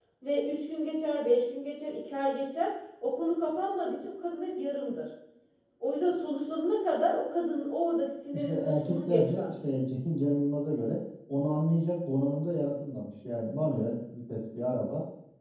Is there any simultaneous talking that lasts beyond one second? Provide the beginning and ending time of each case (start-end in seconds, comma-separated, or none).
8.3-9.6